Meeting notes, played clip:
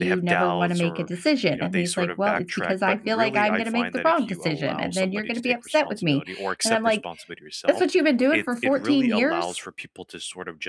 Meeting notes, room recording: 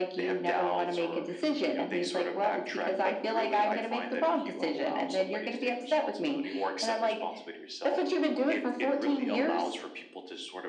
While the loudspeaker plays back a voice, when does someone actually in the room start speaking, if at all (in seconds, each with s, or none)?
none